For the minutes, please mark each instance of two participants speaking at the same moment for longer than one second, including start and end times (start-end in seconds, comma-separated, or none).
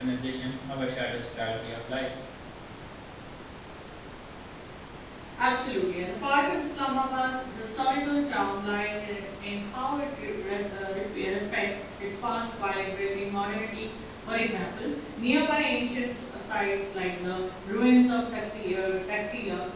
none